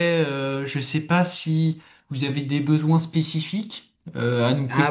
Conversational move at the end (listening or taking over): taking over